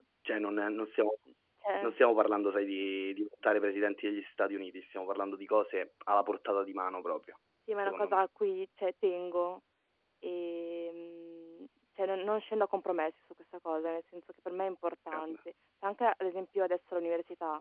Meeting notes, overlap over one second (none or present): none